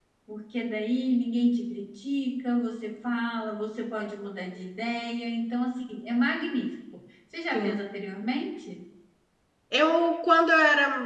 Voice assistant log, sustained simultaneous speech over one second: none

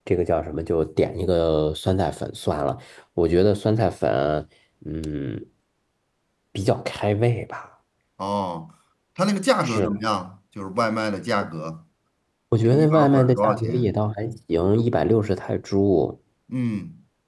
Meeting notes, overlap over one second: present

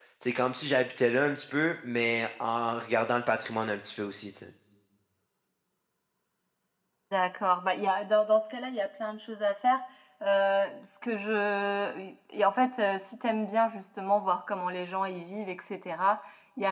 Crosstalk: none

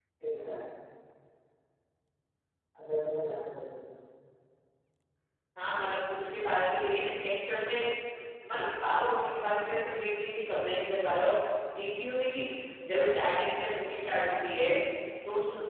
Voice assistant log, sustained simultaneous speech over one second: none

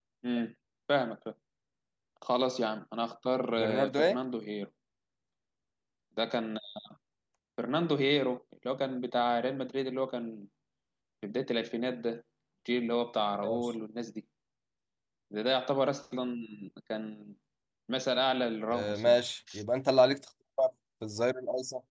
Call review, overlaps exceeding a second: none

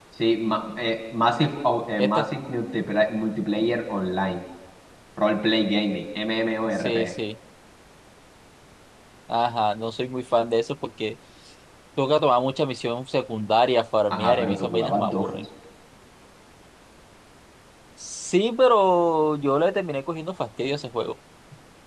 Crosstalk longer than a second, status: present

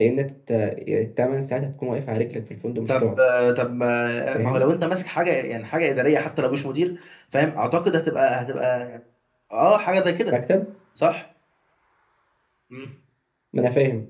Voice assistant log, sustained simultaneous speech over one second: none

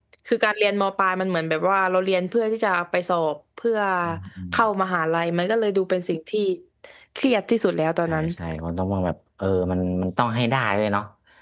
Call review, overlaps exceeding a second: none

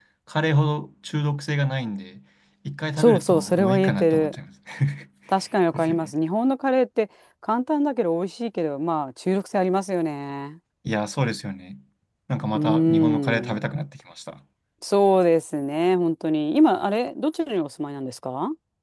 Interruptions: present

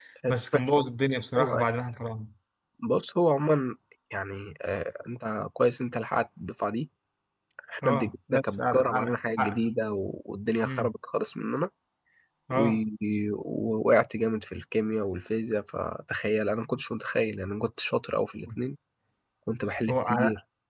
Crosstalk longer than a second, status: present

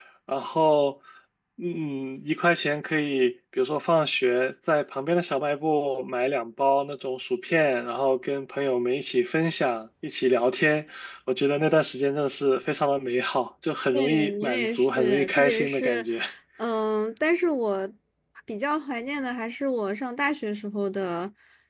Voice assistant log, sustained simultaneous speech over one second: present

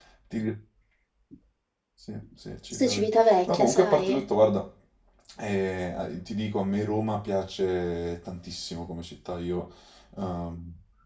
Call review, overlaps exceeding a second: present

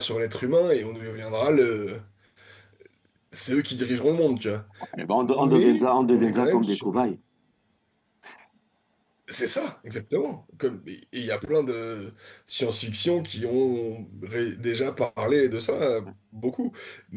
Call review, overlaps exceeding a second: present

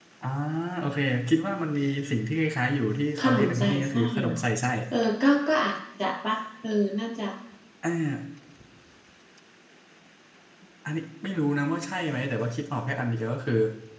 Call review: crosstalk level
present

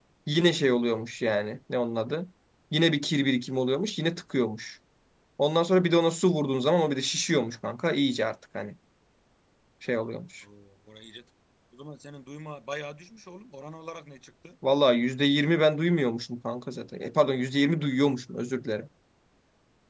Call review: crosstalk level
none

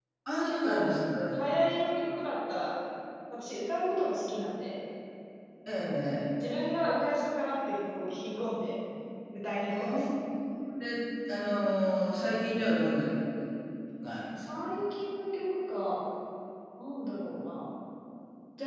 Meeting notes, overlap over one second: none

